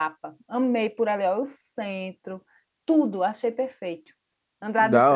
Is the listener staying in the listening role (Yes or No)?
No